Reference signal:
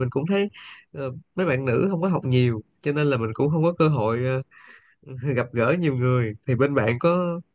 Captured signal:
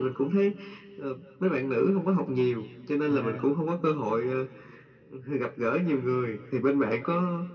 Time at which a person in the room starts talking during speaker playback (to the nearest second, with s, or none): 3 s